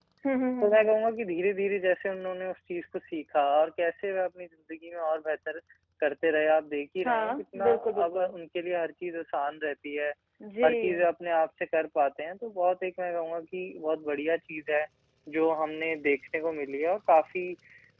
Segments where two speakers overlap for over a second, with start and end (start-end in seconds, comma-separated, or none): 7.0-8.3